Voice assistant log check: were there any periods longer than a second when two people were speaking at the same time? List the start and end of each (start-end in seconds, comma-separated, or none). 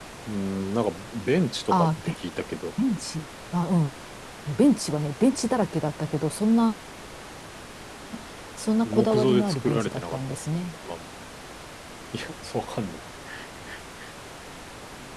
8.8-10.3